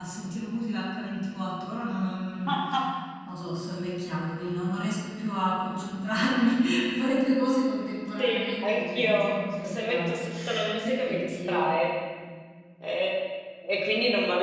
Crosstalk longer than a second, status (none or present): present